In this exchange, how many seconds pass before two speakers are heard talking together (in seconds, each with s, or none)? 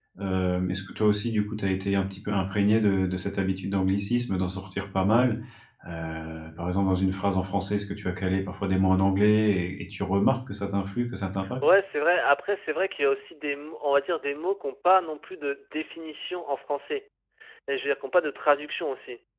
none